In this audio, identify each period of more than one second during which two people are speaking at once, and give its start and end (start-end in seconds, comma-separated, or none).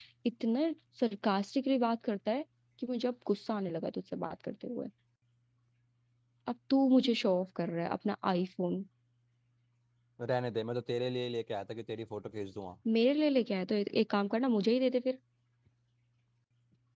none